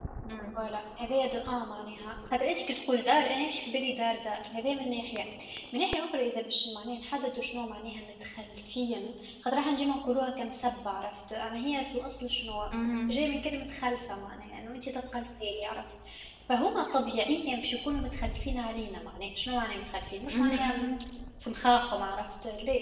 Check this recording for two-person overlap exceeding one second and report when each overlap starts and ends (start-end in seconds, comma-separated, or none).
none